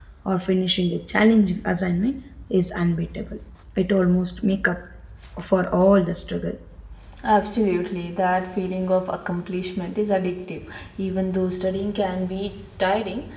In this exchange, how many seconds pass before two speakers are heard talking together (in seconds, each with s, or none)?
none